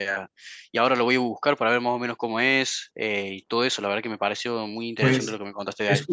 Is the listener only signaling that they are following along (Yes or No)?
No